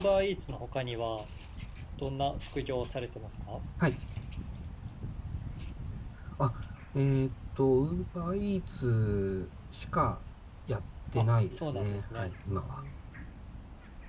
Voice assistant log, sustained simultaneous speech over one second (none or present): present